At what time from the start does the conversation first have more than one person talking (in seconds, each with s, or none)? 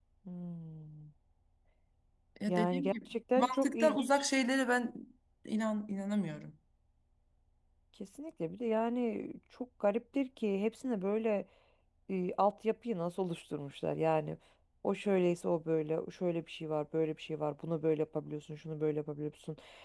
2.5 s